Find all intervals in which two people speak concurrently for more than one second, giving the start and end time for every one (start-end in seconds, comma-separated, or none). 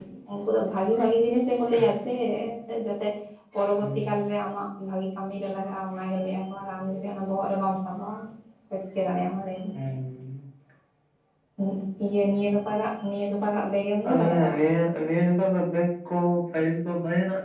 none